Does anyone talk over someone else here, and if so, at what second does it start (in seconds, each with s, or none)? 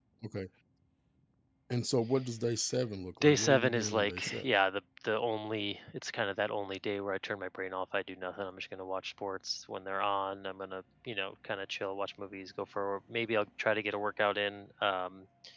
3.2 s